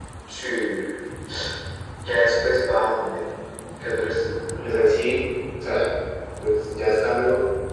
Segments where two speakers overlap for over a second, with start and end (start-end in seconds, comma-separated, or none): none